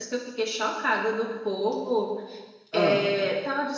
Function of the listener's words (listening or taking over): listening